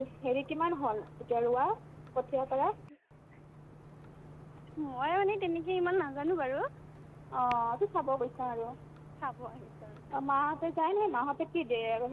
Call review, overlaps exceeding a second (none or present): none